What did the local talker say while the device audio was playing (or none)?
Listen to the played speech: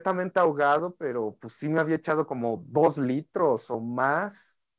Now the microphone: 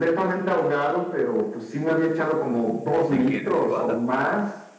¿De qué? ¿De cebada?